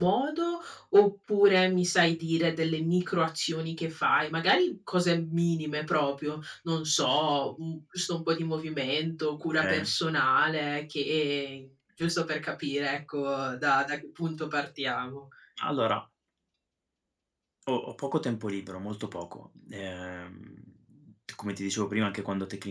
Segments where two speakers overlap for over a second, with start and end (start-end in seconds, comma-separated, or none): none